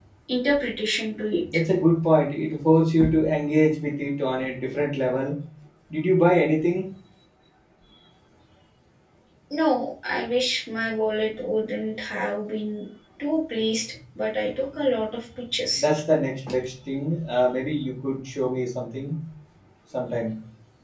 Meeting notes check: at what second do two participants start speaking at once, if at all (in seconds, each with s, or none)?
none